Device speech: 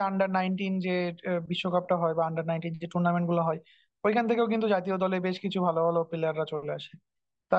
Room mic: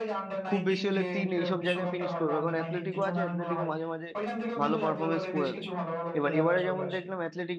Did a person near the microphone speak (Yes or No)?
Yes